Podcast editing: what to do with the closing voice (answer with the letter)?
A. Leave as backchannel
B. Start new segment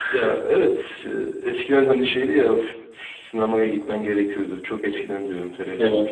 A